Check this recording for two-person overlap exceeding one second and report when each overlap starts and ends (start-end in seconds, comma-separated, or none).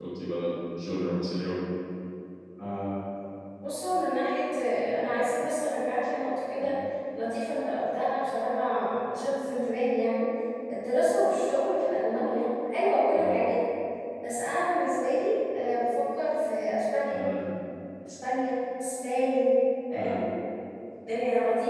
none